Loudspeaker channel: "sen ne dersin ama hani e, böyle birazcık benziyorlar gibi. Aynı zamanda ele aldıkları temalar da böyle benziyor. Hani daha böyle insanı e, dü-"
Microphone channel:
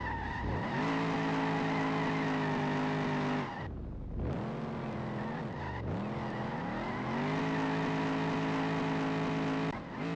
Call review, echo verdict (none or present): none